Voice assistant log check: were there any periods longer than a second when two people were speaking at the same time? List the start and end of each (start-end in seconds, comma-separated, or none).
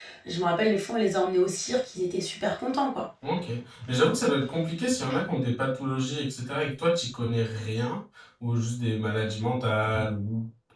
none